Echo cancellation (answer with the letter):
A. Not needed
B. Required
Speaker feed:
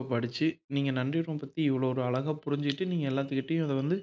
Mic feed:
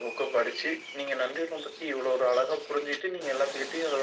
B